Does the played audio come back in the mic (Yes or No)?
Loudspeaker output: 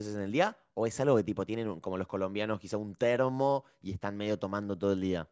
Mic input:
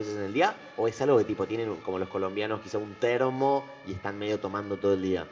Yes